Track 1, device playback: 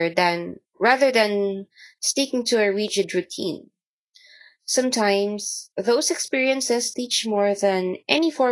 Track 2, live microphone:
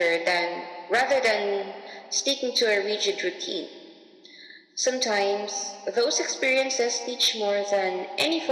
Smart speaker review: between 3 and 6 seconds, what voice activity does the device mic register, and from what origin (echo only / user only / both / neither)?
echo only